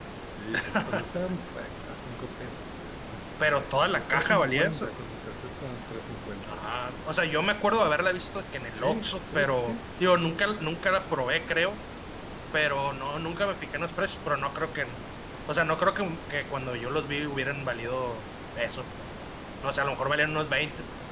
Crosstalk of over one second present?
Yes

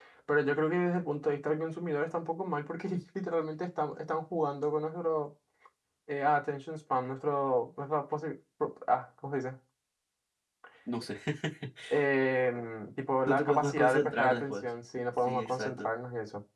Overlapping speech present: Yes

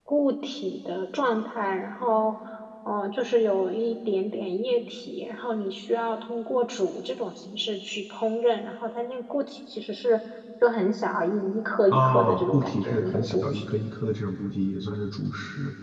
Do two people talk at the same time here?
Yes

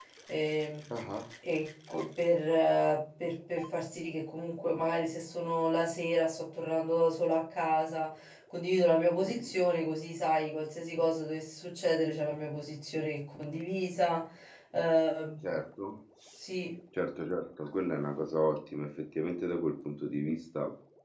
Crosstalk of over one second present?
No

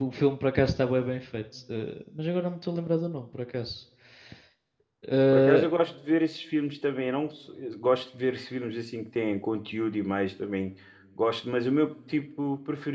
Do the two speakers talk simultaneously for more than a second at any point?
No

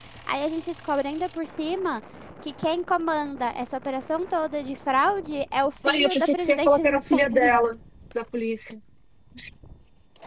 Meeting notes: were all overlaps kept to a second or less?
No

